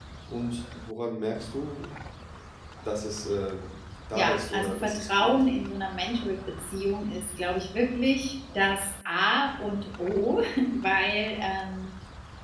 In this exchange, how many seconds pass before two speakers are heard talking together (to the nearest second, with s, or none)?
4 s